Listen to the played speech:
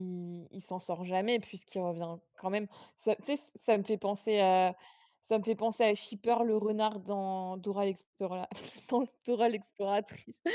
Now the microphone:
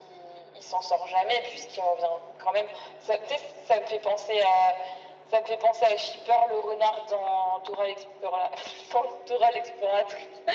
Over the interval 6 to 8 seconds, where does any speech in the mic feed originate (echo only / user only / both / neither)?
echo only